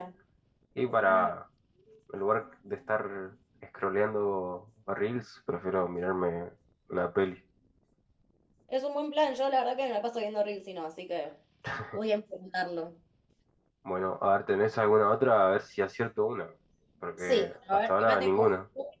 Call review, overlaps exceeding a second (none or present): present